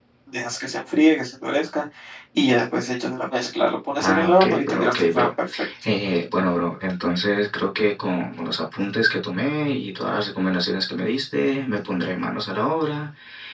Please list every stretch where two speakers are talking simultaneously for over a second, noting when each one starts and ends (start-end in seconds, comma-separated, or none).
4.0-5.3